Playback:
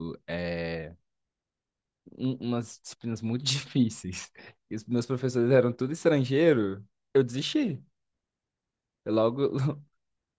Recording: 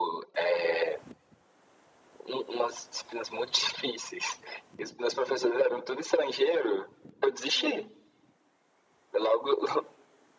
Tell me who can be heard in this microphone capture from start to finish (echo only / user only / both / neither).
both